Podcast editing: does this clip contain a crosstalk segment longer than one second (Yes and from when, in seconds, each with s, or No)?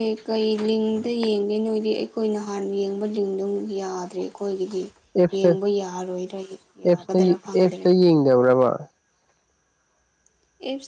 No